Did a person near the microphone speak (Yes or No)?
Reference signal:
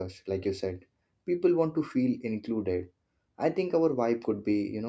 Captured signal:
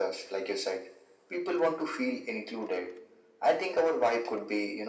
No